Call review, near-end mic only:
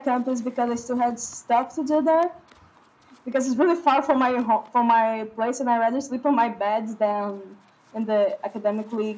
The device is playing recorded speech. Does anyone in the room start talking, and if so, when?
none

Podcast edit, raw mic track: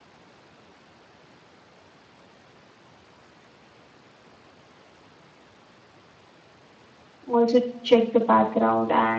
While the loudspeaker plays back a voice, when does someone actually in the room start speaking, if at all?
7.3 s

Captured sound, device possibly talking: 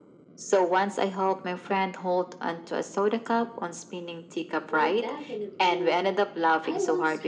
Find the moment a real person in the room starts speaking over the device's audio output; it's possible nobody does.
4.7 s

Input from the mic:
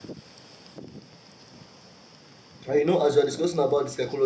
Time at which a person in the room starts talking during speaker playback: 2.6 s

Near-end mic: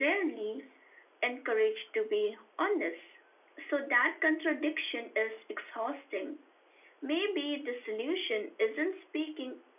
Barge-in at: none

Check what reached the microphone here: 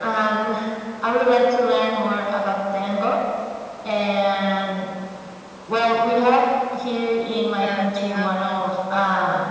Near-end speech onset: 7.6 s

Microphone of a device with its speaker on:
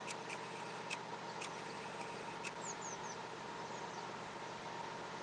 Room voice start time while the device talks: none

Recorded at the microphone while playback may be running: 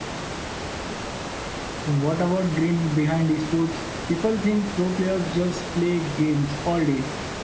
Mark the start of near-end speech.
none

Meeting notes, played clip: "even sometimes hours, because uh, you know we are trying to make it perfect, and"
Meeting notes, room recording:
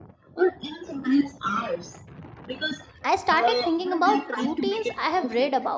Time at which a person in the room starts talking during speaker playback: 3.0 s

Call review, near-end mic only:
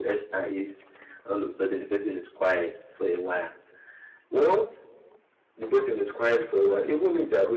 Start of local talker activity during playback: none

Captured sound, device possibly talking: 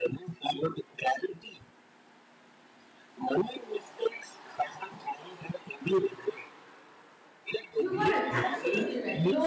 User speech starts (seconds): 7.8 s

